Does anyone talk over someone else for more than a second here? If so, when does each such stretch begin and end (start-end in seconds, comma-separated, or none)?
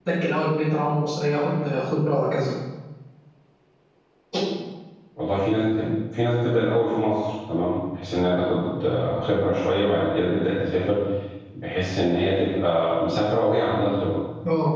none